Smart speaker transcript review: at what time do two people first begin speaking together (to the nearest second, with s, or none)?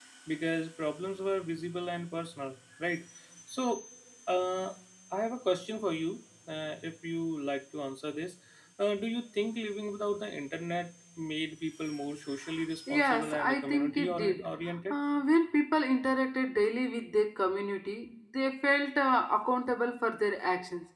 13 s